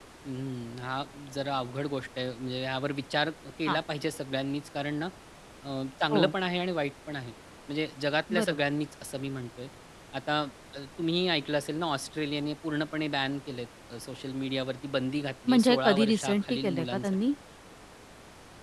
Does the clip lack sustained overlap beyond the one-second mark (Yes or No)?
No